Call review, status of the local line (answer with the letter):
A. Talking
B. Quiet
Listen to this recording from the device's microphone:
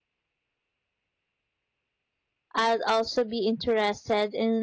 A